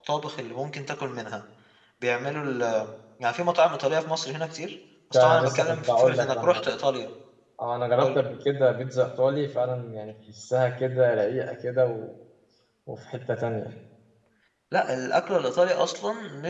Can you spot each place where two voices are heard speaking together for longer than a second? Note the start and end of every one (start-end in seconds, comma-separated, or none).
5.1-6.6